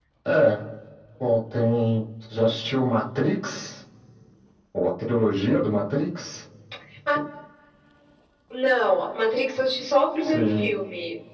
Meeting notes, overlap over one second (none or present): none